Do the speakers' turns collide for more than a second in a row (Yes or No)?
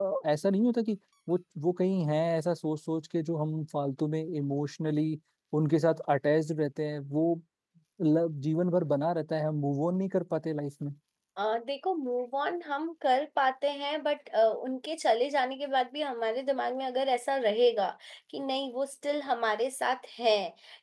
No